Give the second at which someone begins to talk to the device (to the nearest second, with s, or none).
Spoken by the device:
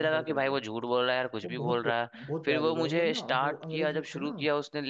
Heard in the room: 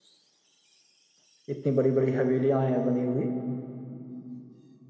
2 s